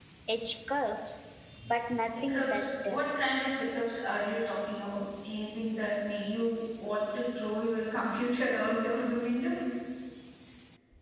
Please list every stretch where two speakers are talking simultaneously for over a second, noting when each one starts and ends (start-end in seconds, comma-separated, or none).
2.1-3.5